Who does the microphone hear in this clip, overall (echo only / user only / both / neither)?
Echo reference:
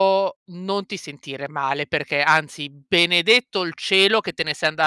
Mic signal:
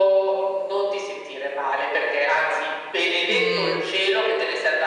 both